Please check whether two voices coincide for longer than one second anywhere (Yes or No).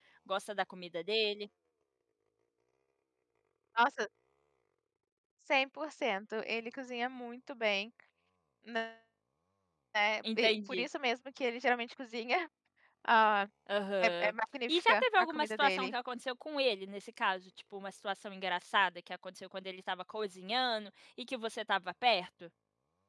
Yes